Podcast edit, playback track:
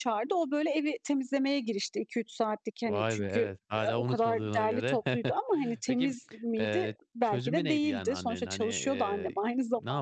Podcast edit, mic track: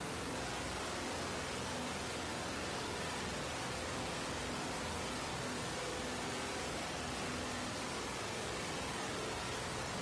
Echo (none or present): none